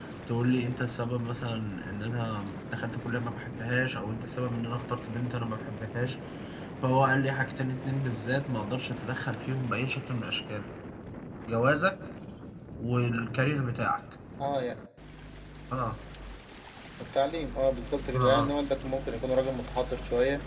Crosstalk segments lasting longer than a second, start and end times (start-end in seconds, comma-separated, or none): none